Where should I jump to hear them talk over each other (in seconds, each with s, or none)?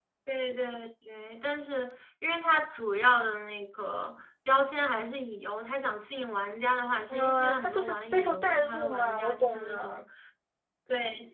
7.1 s